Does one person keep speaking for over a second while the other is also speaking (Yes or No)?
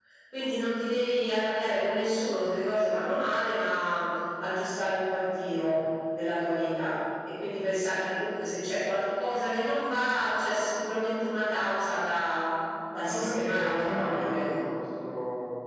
Yes